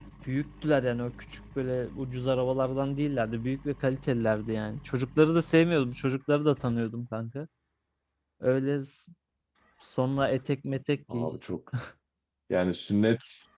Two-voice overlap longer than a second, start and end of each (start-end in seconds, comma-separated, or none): none